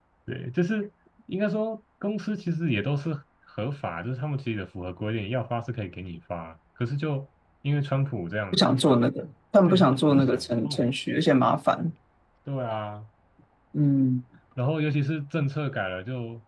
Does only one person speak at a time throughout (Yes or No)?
No